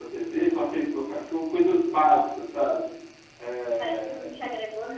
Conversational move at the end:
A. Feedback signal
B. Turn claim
B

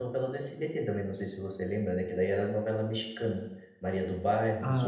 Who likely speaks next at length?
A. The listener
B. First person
A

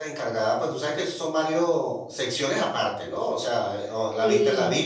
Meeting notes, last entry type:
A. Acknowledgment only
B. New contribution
A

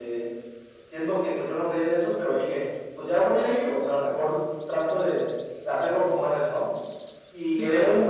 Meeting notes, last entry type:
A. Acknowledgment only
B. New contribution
A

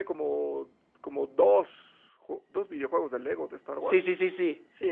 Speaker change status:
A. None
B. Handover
B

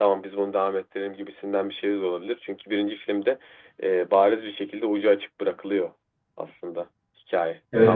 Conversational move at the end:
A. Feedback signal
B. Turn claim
B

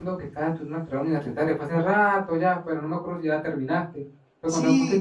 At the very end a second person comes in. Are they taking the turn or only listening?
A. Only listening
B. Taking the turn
B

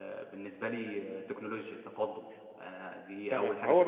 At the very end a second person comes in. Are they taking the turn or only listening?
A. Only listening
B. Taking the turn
B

